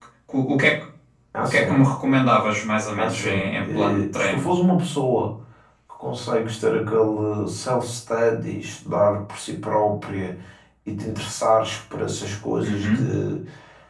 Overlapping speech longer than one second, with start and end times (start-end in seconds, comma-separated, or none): 3.0-4.4